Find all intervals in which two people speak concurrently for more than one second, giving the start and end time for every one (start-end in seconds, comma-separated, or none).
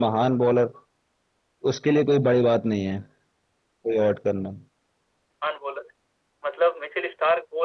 none